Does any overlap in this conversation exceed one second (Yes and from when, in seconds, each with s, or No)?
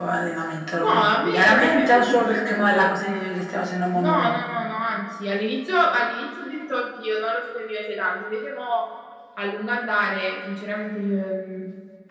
Yes, from 0.8 s